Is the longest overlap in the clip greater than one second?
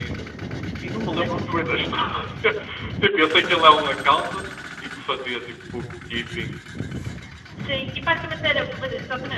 No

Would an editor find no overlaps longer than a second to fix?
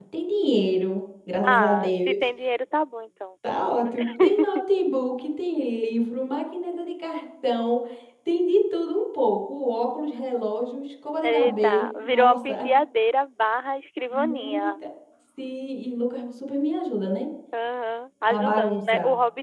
No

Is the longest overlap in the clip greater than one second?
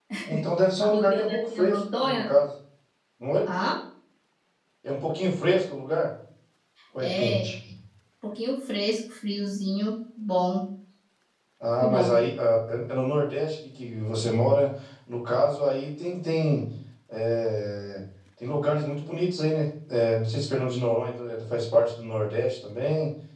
Yes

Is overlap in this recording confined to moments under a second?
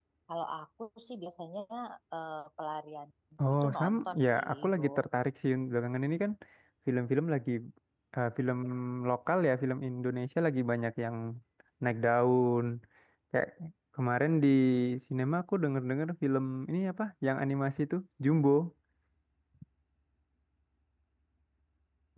No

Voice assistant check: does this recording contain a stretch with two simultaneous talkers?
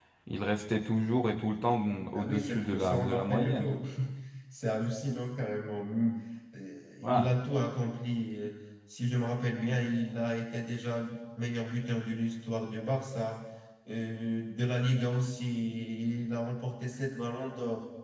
Yes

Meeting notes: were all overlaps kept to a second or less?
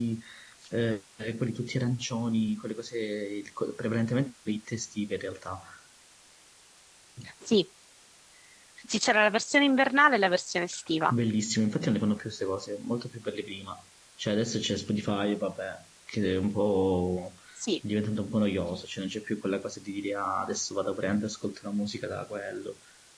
Yes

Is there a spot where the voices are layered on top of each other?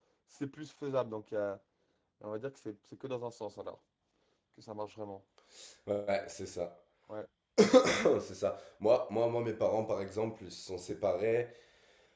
No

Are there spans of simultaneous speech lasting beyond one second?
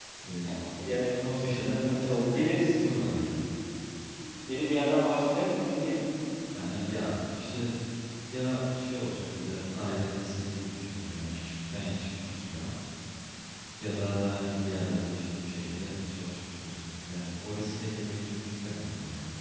Yes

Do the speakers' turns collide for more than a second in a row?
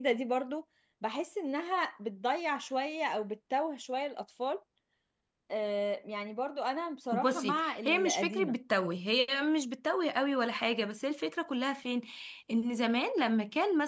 Yes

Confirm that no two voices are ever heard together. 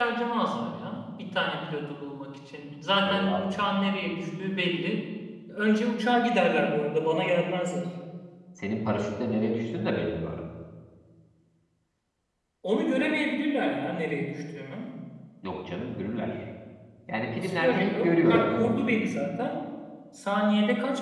No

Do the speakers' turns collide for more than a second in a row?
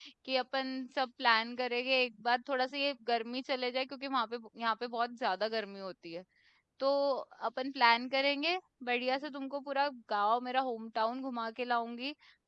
No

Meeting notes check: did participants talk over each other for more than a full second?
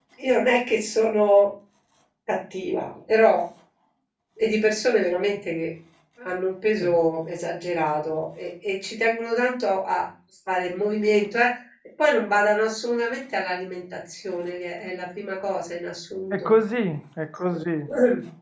No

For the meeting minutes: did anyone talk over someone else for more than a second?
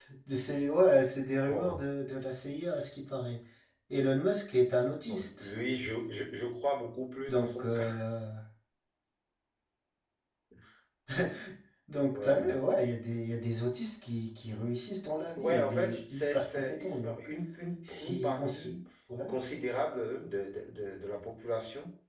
Yes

